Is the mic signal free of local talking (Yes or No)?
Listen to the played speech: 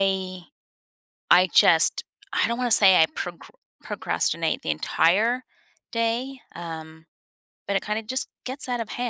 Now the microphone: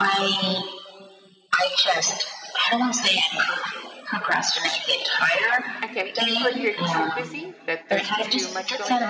No